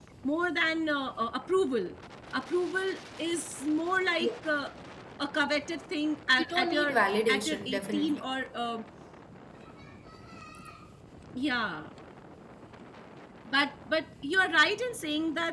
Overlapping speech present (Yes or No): Yes